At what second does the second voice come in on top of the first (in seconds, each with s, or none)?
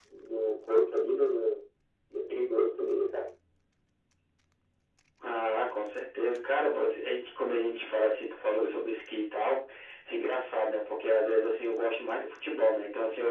none